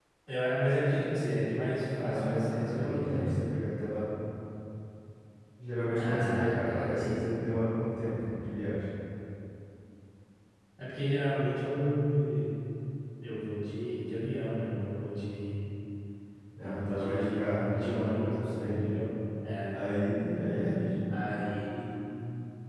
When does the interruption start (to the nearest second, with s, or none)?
2 s